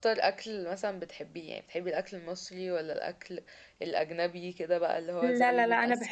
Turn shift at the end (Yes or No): Yes